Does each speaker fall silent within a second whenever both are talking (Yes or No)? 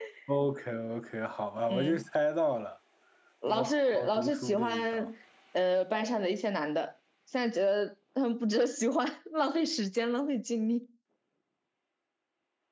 No